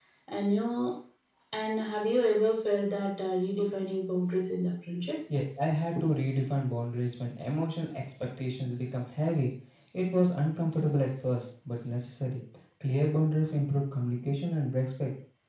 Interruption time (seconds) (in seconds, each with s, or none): none